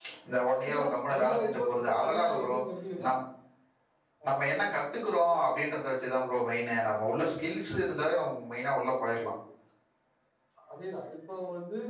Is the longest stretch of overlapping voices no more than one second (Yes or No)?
No